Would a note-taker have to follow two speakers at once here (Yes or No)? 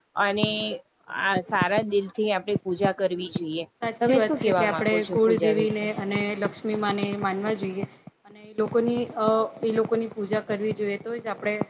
Yes